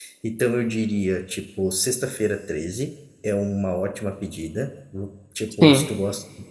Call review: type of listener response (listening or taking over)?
listening